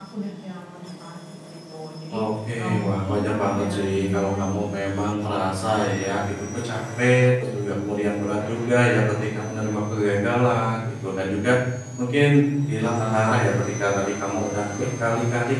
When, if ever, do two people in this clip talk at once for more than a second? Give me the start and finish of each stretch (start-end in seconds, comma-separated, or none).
2.6-4.8